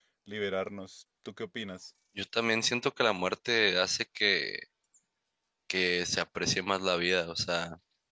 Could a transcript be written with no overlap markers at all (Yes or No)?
Yes